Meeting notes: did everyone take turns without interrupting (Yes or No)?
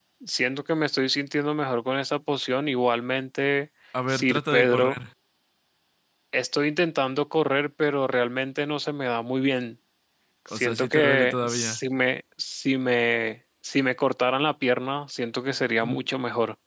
No